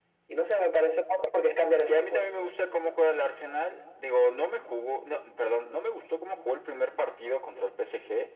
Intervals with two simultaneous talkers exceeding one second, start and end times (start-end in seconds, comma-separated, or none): none